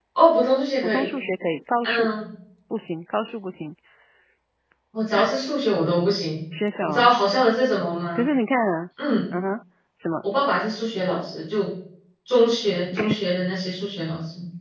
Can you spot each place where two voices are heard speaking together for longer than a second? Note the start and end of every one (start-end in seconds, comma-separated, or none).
none